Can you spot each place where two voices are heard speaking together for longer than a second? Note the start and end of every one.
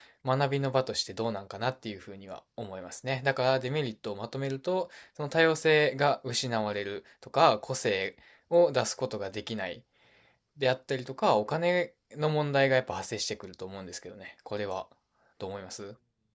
none

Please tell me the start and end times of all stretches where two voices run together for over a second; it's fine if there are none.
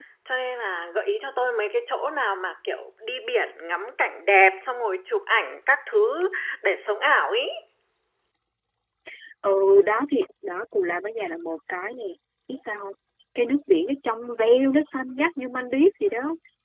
none

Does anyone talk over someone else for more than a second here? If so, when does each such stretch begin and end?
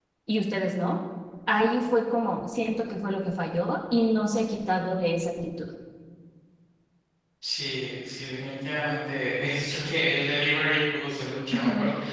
none

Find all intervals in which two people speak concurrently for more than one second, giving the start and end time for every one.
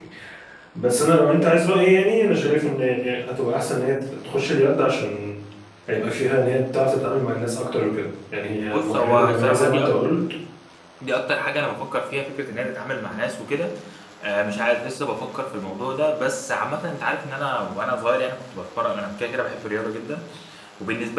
8.6-9.9

